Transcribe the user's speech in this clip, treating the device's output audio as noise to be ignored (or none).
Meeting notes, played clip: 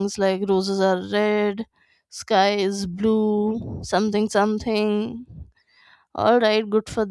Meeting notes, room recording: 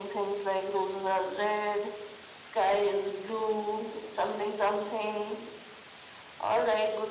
none